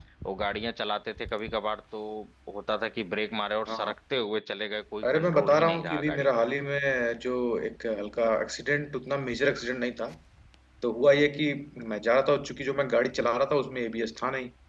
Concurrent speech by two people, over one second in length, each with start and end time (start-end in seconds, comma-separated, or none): 5.0-6.3